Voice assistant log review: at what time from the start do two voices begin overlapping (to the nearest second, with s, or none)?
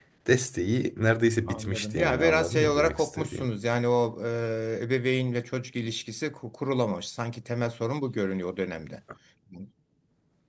1 s